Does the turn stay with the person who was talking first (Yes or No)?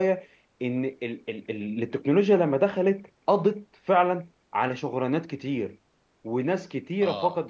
Yes